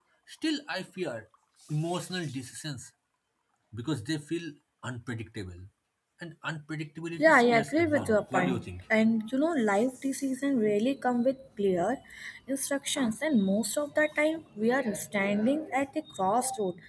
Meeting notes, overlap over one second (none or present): present